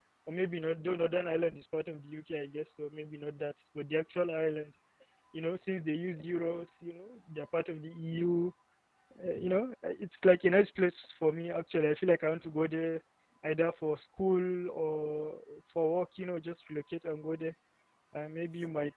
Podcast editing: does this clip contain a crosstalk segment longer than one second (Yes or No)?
No